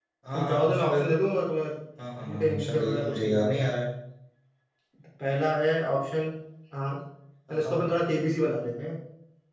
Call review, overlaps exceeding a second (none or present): present